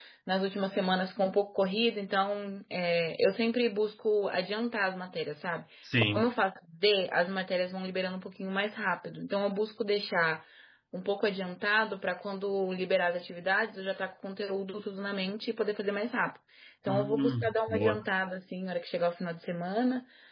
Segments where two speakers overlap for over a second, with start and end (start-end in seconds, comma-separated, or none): 16.9-18.1